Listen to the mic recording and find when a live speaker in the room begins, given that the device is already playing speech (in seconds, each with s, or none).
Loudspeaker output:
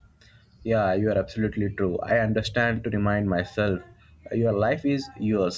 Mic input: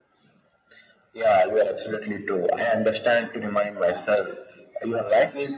none